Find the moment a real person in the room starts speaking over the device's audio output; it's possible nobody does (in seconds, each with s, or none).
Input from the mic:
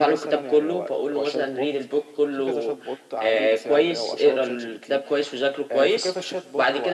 none